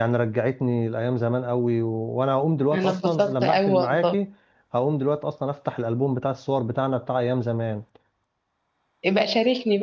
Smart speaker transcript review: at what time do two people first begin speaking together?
2.7 s

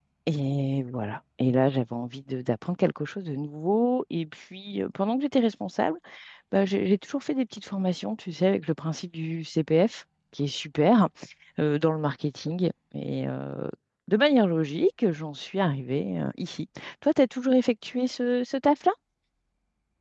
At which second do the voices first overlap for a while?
none

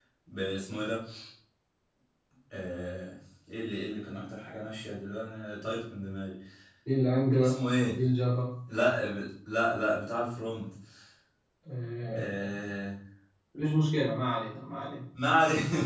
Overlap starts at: none

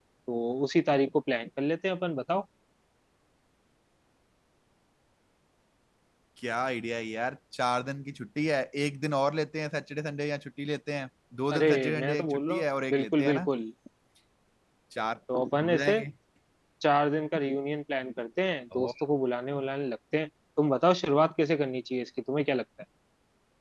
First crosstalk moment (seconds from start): 11.5 s

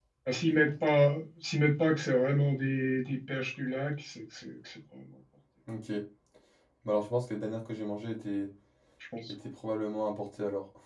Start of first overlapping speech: none

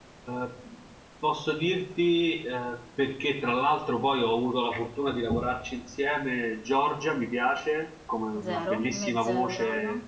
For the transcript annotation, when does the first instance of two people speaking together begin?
8.3 s

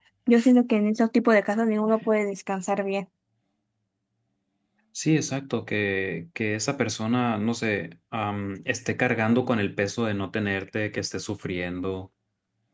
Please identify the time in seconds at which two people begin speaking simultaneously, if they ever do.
none

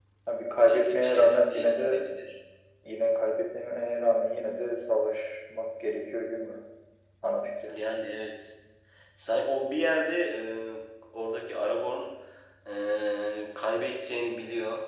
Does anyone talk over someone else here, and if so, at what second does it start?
0.6 s

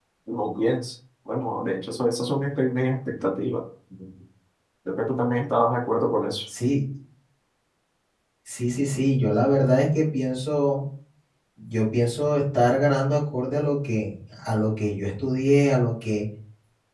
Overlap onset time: none

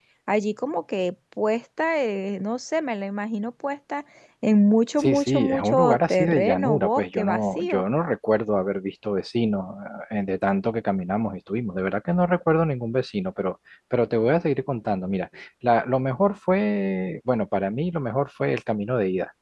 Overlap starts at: 5.0 s

